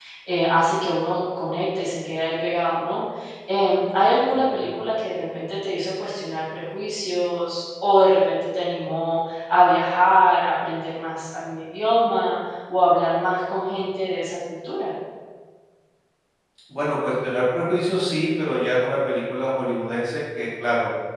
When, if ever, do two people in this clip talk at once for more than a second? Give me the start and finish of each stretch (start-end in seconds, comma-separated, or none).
none